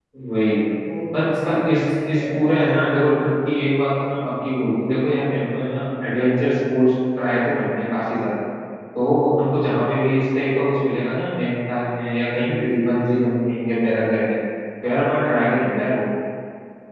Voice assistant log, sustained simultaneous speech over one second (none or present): present